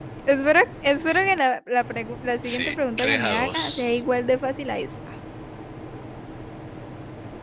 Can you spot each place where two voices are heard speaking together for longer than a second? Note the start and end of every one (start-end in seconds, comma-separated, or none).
2.4-4.0